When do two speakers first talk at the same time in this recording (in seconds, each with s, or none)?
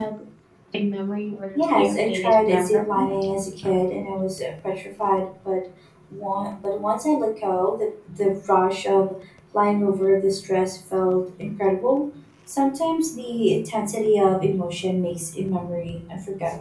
1.6 s